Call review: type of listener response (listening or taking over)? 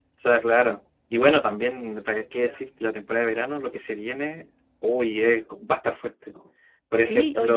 taking over